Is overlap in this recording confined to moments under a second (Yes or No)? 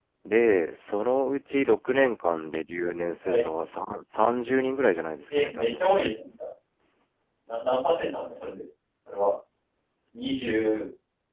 Yes